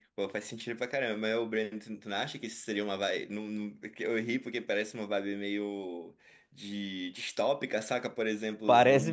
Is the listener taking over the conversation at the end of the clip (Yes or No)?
No